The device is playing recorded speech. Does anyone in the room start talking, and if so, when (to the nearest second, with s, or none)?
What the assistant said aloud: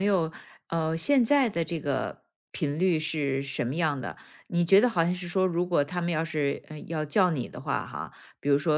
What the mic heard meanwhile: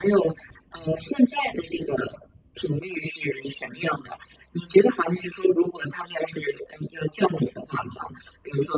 none